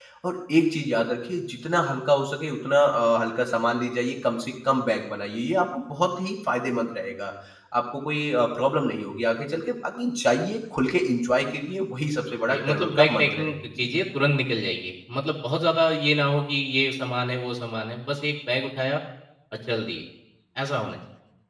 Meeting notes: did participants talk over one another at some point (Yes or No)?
Yes